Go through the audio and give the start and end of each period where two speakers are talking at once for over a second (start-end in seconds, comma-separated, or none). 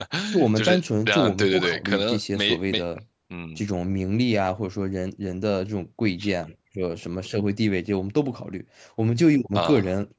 0.6-2.8